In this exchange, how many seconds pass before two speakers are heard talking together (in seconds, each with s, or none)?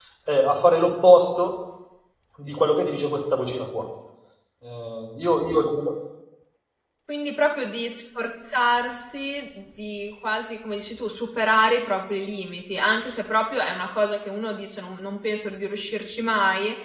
none